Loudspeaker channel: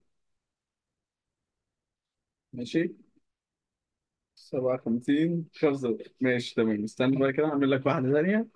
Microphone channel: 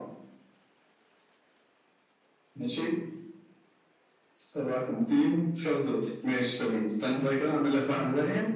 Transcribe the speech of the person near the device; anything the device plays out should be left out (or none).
none